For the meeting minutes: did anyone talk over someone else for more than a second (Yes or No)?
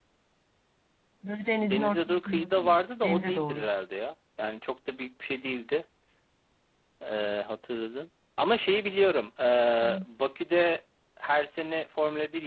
Yes